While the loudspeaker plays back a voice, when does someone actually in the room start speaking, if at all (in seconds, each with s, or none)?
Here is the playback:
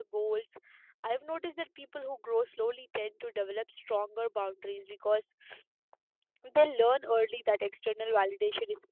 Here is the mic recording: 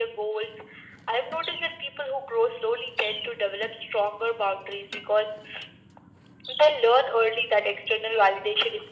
none